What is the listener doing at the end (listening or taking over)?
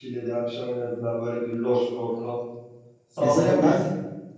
taking over